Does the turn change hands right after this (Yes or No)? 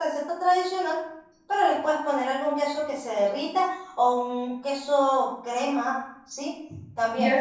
Yes